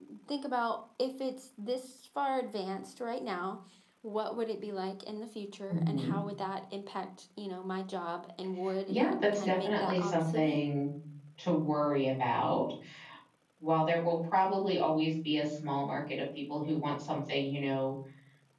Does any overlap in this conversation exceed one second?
Yes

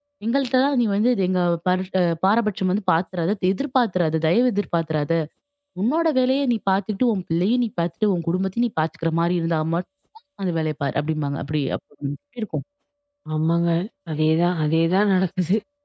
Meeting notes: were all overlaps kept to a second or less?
Yes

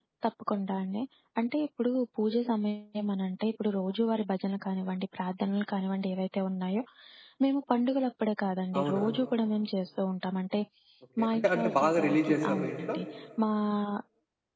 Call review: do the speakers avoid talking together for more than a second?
No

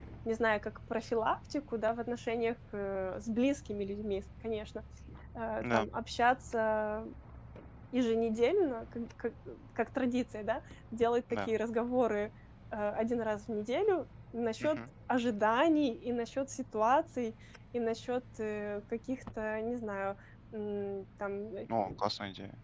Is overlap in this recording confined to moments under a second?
Yes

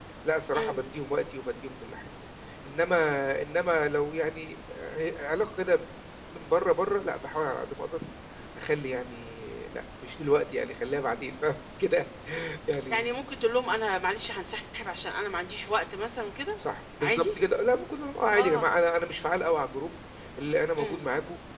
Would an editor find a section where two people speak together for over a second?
No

